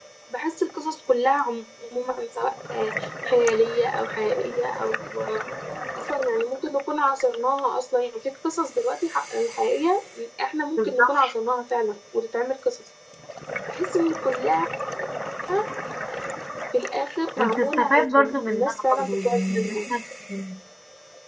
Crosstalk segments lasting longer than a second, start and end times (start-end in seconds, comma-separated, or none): 17.4-19.7